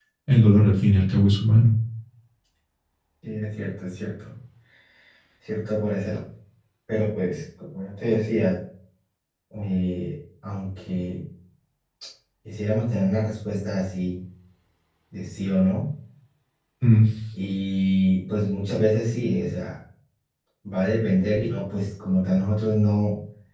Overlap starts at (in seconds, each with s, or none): none